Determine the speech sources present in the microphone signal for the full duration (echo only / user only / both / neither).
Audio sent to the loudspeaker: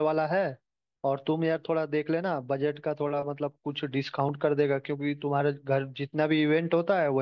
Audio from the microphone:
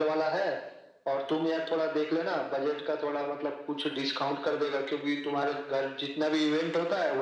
echo only